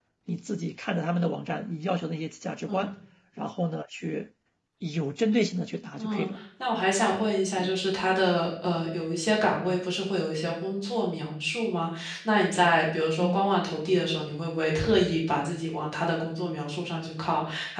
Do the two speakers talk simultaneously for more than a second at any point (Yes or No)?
No